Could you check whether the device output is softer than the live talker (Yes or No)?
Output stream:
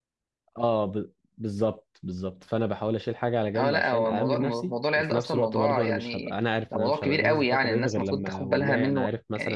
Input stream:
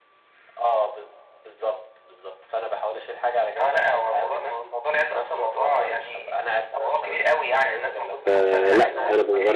Yes